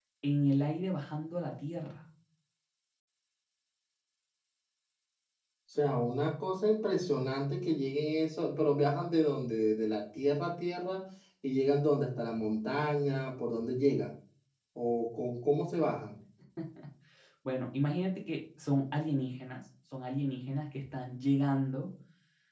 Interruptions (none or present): none